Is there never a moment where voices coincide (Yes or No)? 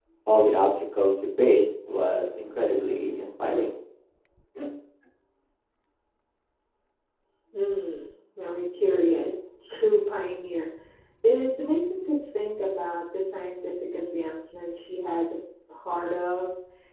Yes